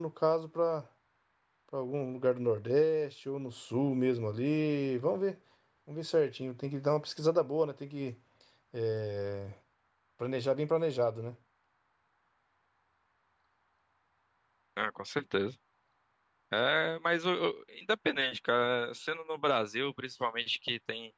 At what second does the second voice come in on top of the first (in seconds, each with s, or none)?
none